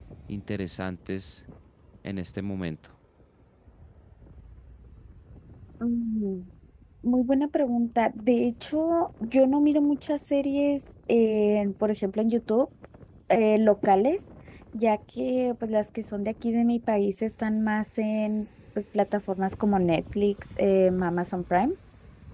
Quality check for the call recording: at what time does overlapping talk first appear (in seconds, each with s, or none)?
none